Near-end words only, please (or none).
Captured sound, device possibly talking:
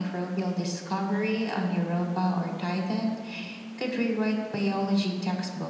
none